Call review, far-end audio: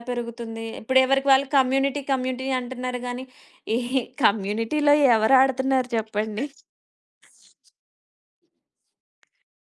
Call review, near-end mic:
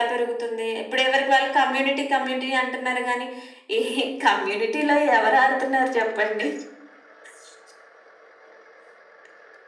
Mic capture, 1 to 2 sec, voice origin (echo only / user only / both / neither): echo only